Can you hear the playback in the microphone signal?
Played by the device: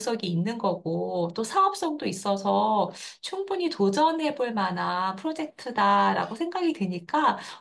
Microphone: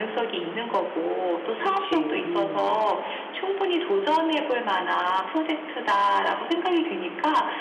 Yes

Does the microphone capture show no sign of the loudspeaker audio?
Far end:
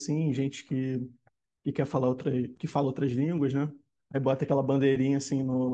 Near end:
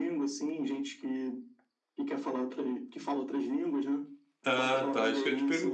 No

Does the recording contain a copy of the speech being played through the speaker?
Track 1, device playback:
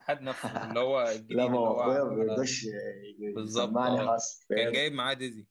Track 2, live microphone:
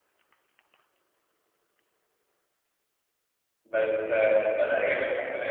No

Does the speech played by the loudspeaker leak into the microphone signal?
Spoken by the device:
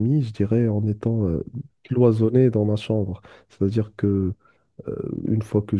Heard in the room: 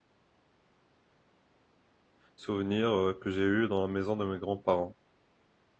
No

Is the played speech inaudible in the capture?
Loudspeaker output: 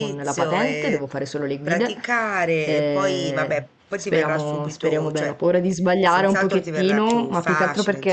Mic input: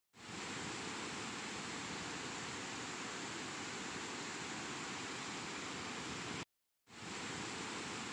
Yes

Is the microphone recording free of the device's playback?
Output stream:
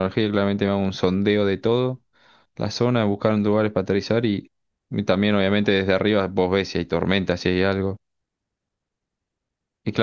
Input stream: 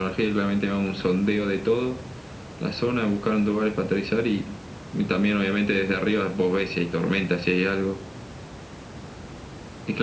No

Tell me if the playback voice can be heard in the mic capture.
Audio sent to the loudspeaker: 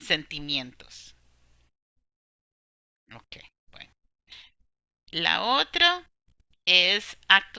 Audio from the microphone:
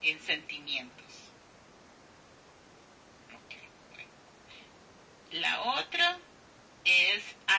Yes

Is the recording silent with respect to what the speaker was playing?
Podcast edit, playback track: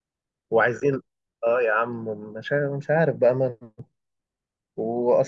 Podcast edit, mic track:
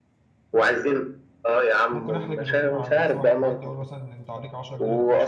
No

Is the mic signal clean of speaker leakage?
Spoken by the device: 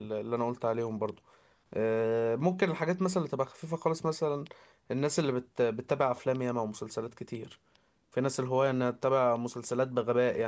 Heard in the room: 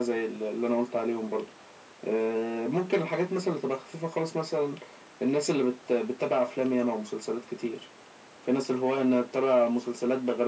No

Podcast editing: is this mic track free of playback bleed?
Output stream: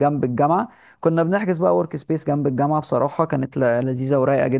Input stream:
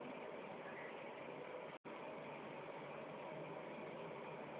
Yes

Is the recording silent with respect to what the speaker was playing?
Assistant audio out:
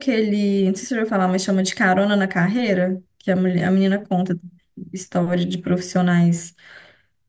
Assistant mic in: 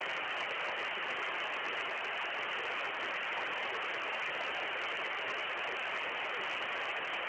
Yes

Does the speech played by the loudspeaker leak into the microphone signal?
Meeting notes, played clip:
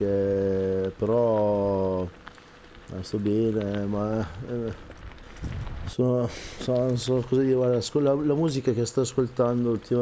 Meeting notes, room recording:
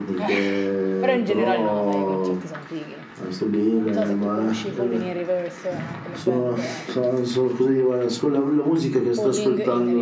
Yes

